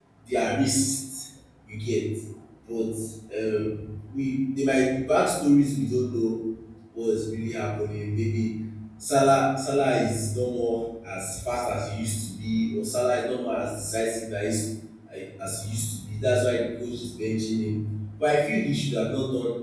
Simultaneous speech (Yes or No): No